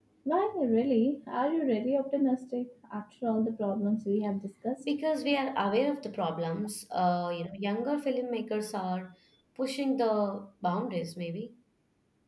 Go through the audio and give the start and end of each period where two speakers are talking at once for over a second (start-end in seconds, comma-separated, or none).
none